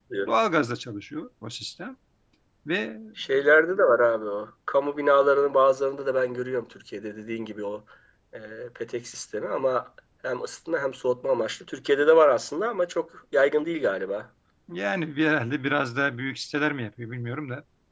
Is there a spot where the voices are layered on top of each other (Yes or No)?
No